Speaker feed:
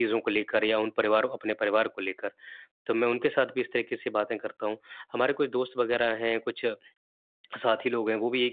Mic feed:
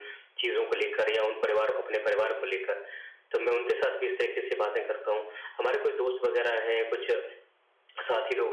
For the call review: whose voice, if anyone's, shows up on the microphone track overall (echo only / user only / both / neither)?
echo only